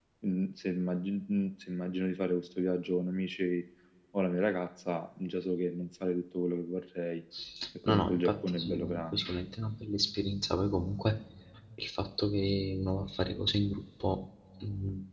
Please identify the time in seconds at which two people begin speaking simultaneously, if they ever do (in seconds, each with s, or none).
7.9 s